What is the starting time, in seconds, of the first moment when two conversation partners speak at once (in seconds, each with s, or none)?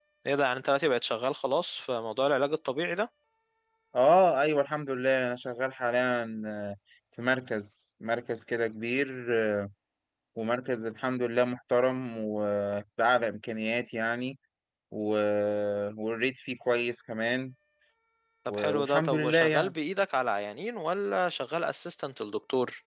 18.5 s